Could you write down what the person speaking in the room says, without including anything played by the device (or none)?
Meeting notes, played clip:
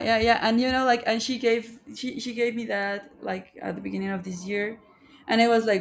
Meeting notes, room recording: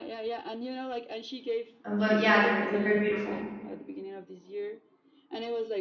Um, but yeah, they're they're very beautiful.